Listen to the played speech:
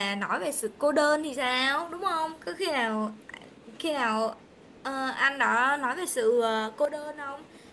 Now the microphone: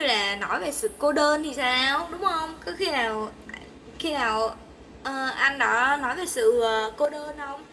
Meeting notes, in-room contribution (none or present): none